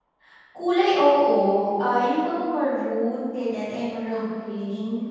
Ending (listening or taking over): taking over